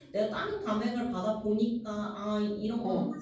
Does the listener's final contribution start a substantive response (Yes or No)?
No